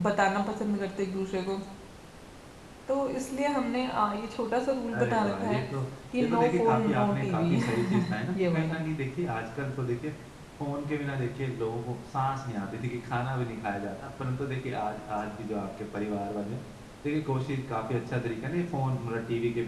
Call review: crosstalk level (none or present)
present